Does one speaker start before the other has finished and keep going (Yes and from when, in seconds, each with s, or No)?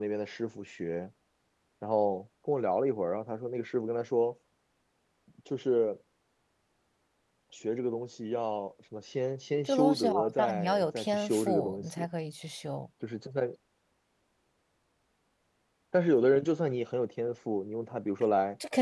Yes, from 9.7 s